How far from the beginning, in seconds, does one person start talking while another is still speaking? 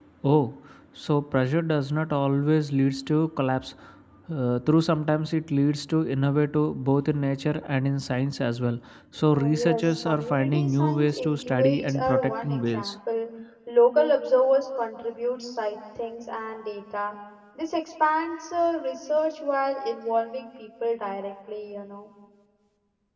9.3 s

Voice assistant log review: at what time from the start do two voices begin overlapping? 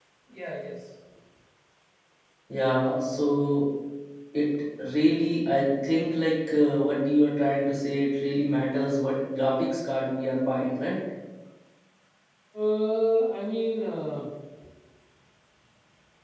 none

